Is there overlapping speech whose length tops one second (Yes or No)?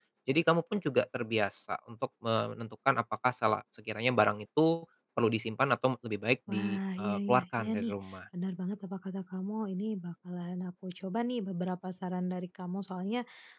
Yes